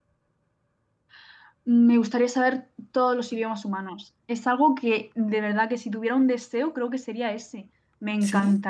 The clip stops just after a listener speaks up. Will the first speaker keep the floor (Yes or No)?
Yes